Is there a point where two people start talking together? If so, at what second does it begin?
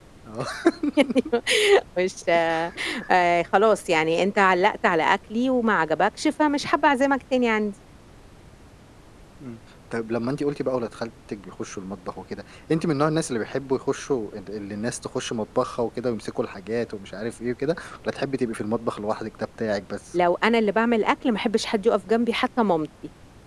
none

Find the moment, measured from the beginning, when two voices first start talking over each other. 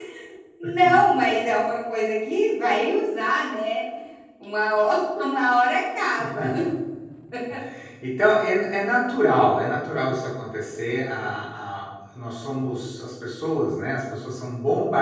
none

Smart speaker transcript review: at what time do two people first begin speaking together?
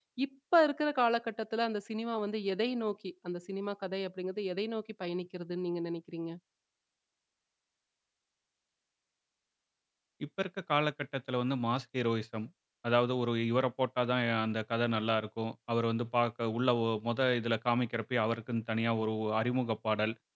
none

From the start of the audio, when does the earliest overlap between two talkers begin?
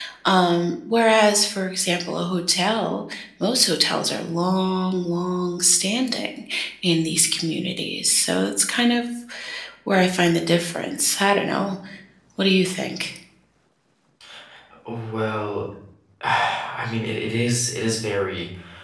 none

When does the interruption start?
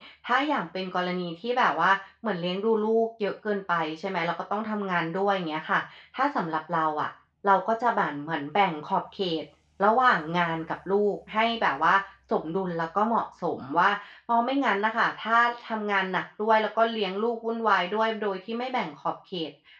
none

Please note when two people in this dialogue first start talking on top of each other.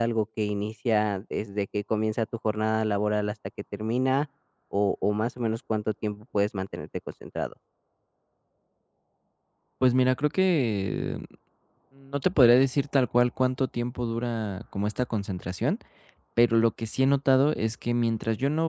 none

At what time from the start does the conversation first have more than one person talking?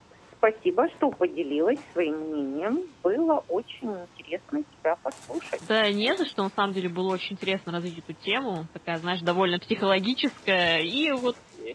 none

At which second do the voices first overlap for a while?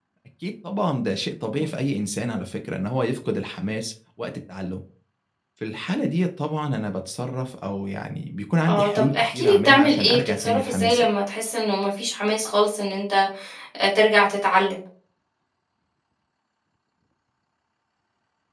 8.7 s

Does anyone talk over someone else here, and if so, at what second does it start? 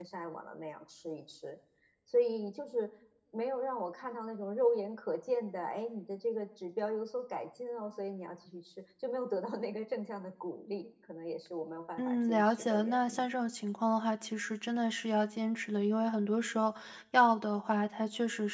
12.0 s

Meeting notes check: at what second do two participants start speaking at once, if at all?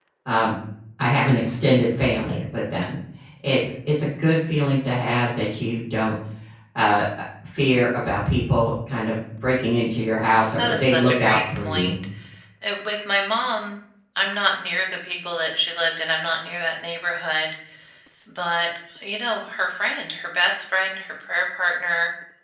10.6 s

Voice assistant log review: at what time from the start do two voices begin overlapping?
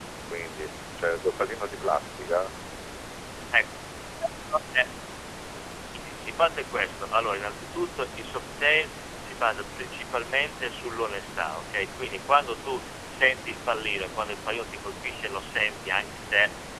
none

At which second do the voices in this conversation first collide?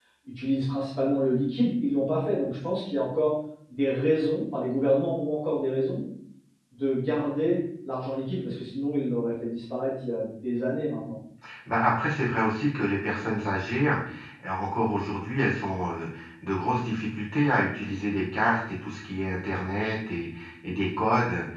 none

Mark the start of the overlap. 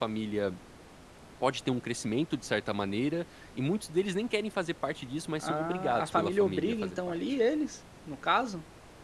5.4 s

